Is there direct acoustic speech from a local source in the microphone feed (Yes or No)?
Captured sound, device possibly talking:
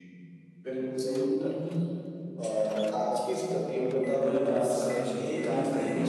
No